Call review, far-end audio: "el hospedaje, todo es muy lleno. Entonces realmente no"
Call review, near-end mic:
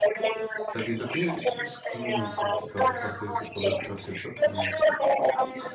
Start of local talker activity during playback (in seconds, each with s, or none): 0.7 s